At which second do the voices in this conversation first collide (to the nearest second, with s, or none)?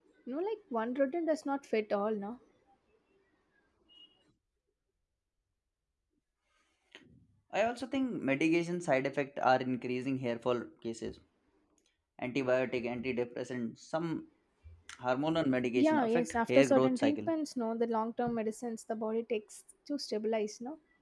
16 s